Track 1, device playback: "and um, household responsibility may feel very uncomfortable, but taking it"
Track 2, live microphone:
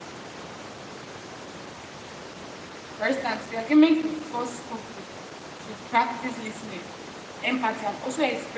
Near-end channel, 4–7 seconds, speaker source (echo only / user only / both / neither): user only